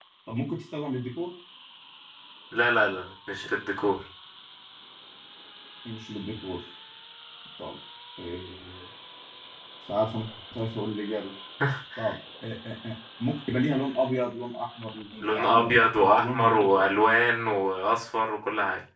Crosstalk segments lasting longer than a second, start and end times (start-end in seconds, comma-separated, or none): 15.2-16.7